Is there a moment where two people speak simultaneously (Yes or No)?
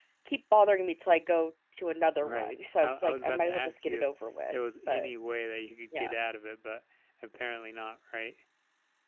Yes